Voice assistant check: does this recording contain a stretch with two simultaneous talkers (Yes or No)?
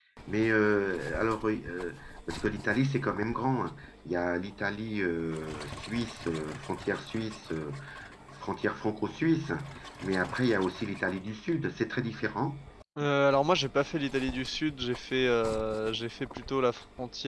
No